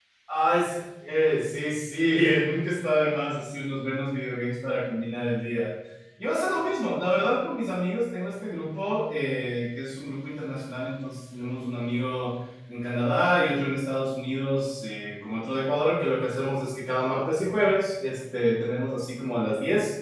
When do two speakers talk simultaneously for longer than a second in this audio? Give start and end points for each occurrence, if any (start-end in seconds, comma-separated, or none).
none